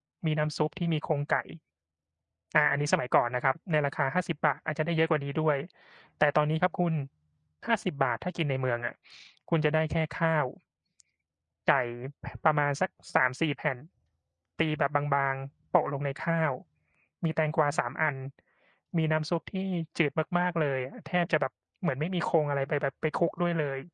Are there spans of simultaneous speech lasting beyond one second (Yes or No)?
No